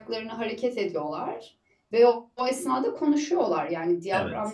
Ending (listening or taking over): listening